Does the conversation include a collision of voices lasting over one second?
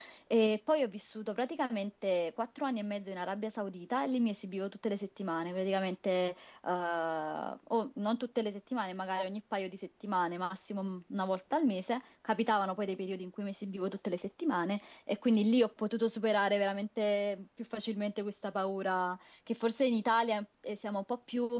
No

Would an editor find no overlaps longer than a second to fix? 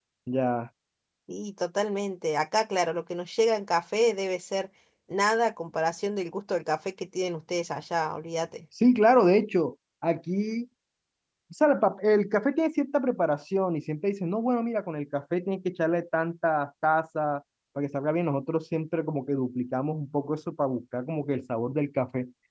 Yes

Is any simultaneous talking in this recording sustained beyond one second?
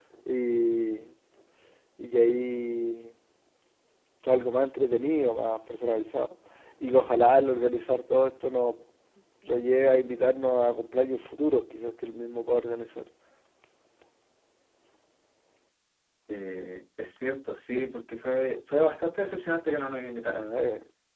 No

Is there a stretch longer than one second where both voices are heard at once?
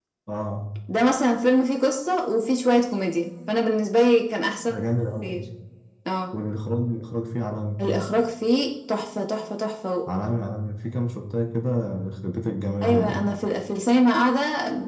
No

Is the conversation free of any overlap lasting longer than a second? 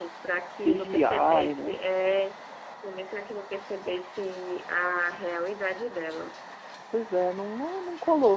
No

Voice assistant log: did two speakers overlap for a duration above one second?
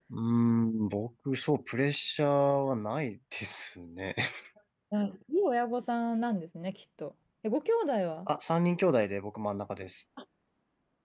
No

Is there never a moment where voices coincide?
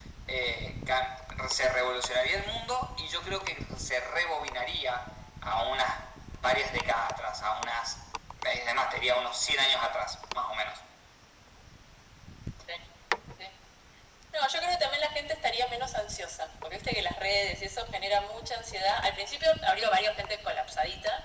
Yes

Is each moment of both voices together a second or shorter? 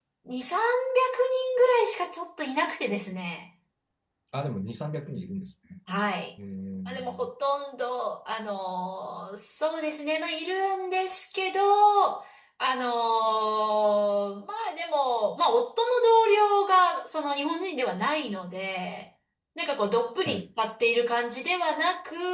Yes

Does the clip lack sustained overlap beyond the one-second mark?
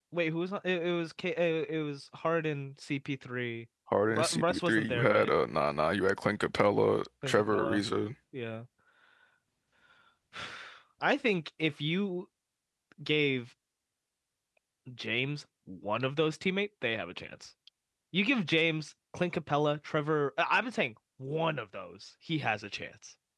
No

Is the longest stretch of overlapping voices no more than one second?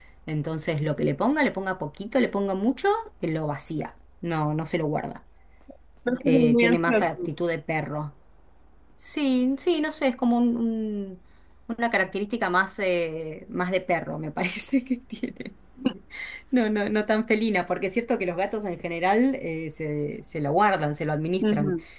No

